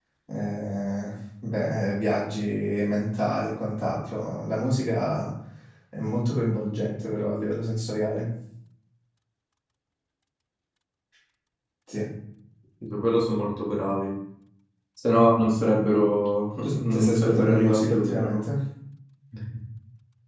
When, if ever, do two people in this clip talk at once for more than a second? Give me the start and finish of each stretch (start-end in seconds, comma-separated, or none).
16.6-18.4